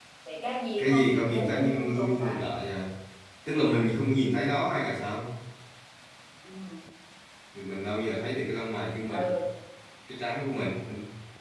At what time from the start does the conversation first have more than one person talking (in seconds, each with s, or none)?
0.8 s